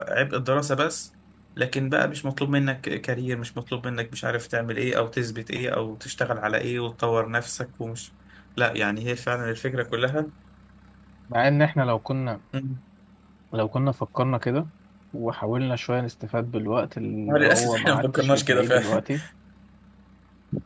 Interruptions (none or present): present